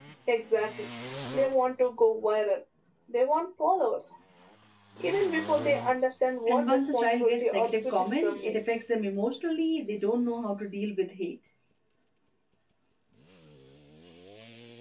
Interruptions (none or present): present